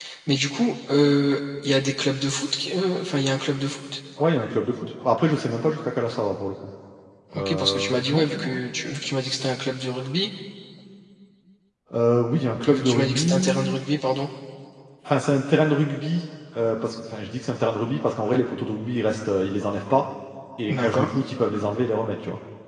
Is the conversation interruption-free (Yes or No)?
No